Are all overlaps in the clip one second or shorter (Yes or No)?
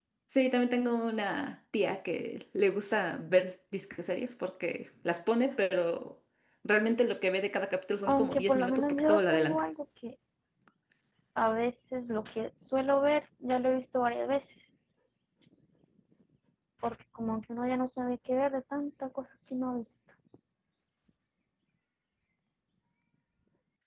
No